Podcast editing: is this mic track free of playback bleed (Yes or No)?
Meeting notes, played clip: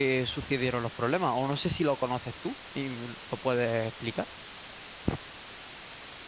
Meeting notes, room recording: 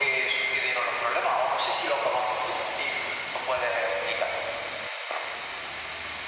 No